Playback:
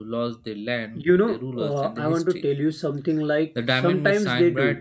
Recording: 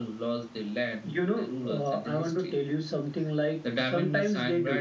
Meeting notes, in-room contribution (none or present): none